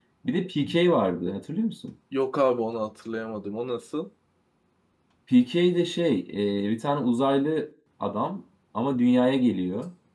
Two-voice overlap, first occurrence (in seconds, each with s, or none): none